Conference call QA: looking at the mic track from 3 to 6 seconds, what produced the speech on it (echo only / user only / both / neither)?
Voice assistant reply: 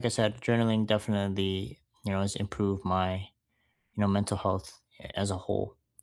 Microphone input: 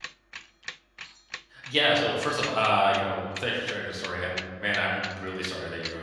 user only